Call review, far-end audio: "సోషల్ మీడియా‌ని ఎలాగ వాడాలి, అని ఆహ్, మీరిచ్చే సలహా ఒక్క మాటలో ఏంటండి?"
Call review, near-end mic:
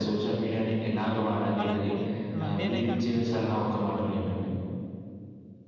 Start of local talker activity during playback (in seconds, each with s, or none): 1.6 s